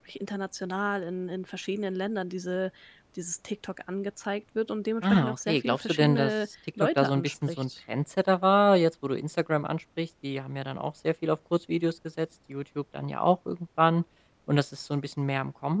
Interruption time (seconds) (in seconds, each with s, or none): 5.0 s